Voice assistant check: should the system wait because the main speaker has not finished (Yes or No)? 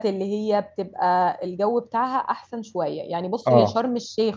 Yes